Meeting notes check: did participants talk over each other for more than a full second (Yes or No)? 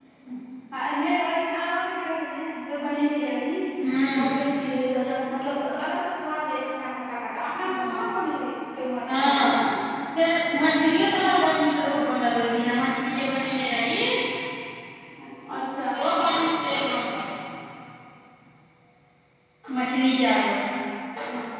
No